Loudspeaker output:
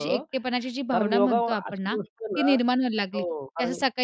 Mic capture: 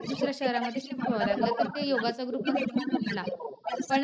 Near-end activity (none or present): present